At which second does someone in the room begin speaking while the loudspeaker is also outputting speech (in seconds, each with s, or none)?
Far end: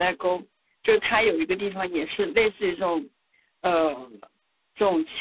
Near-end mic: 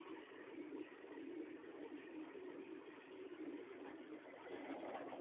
none